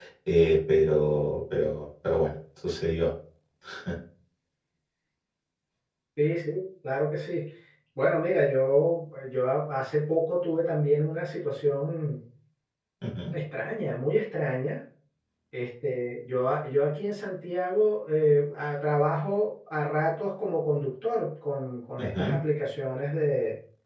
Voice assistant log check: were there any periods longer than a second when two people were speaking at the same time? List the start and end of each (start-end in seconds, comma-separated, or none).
none